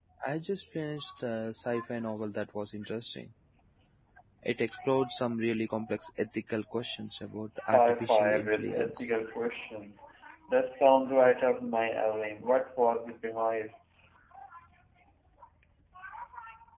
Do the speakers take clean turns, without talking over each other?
No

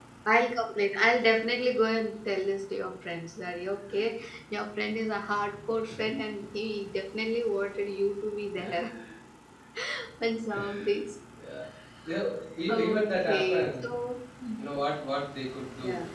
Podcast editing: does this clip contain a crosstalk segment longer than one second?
Yes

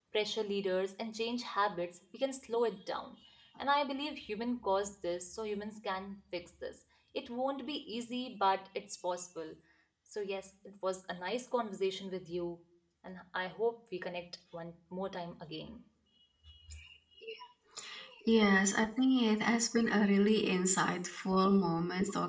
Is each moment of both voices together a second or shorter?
Yes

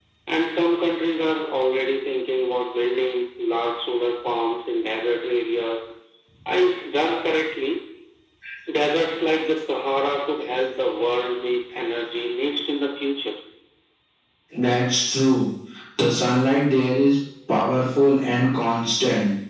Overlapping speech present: No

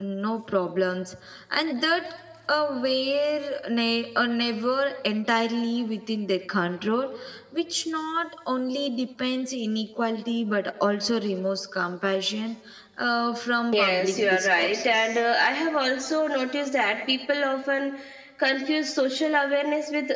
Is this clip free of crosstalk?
No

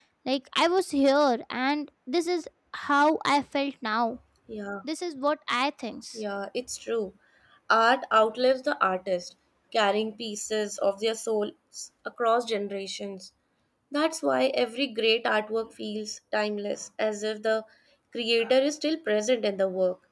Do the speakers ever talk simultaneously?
No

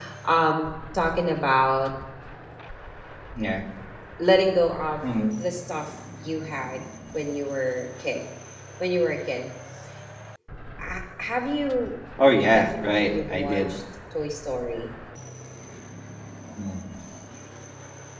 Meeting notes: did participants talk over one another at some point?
Yes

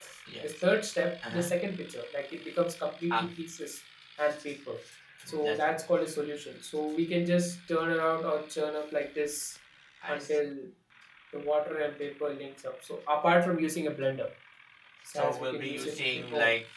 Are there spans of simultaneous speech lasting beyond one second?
Yes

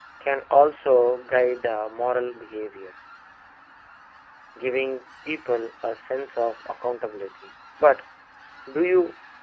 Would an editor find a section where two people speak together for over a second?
No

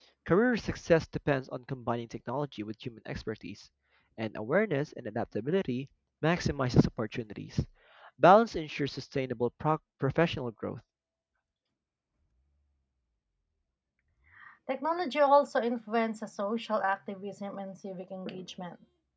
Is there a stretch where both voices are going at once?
No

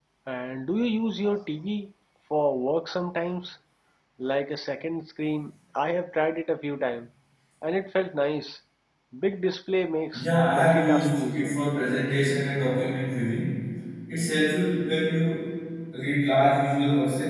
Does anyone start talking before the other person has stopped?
Yes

